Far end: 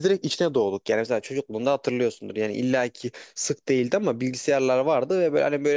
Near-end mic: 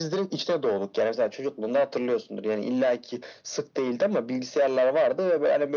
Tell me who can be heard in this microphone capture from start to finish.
echo only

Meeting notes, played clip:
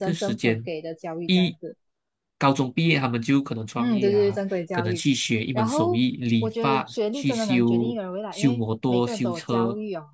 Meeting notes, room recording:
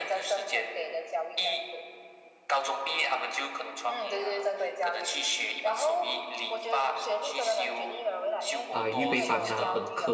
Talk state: both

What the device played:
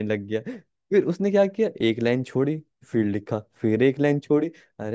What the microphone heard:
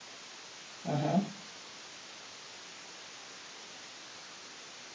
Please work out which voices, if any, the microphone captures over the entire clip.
user only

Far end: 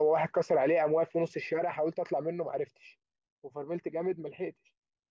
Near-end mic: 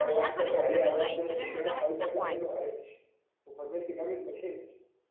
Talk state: both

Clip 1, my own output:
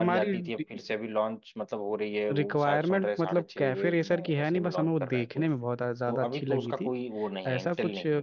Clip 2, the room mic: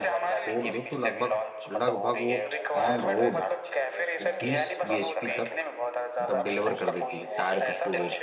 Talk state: both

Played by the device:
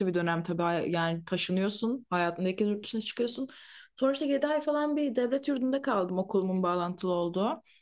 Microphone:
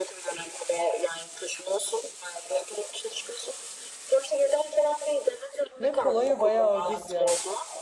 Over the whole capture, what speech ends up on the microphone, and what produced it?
both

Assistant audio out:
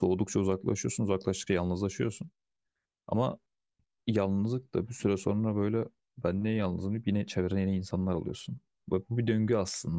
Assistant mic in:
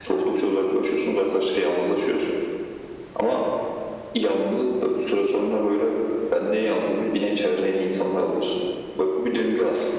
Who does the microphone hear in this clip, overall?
echo only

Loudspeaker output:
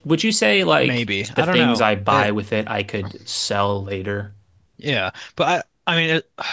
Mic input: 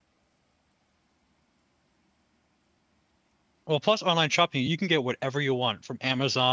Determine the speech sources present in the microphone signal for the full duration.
user only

